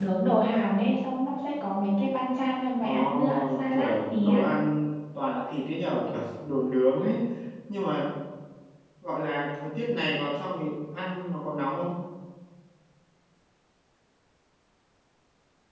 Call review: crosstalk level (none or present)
present